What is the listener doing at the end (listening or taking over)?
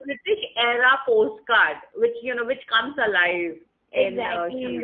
taking over